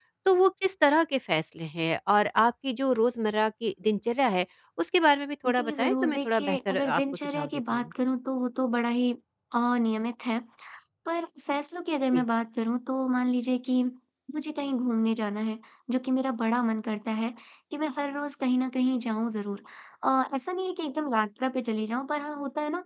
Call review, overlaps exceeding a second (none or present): present